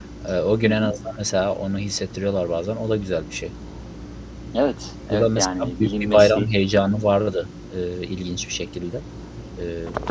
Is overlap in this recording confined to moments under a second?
No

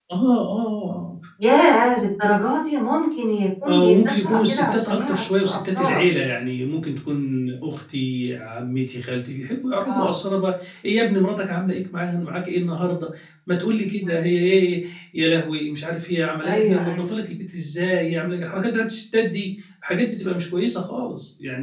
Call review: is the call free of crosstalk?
No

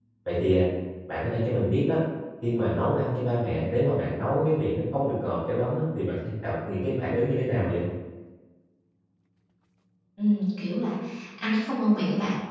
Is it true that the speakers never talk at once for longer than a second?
Yes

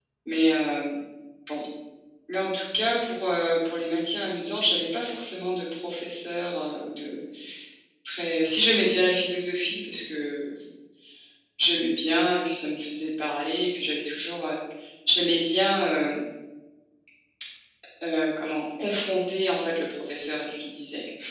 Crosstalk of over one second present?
No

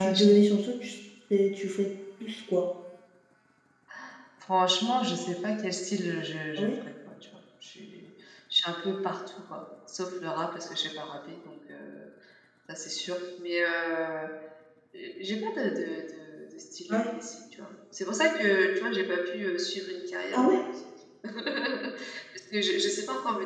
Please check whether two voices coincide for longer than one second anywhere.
No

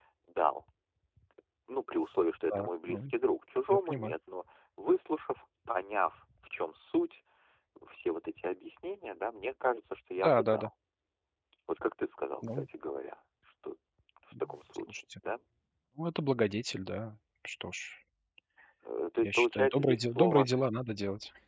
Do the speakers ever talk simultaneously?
Yes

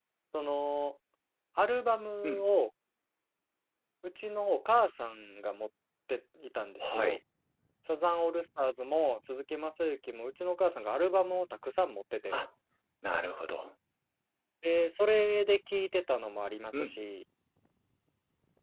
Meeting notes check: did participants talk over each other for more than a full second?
No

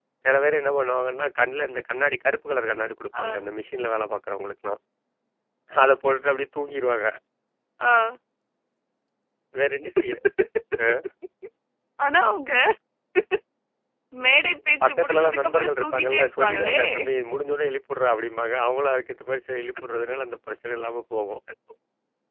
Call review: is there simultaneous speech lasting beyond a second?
Yes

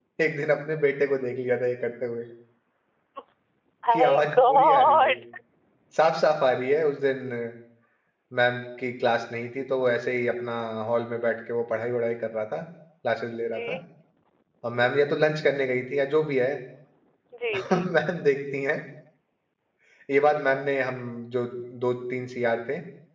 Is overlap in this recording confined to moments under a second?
No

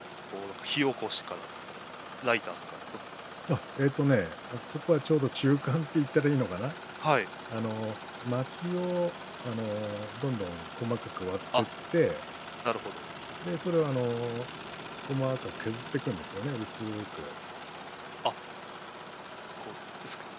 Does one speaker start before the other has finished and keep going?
No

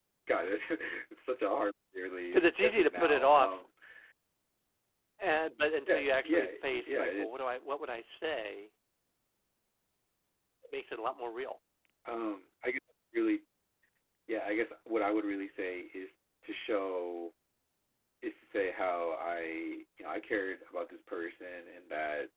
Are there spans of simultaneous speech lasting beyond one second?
Yes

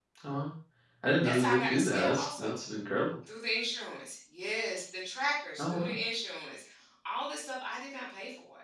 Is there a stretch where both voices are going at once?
Yes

